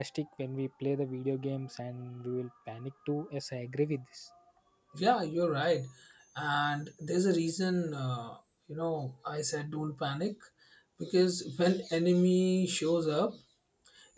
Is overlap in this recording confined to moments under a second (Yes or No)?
Yes